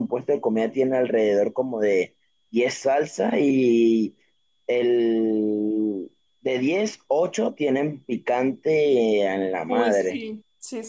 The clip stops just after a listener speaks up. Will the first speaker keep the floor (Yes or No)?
No